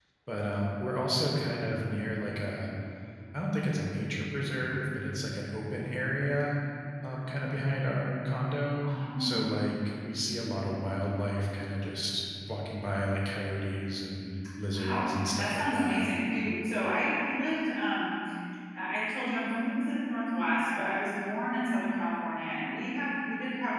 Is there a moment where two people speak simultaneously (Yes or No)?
Yes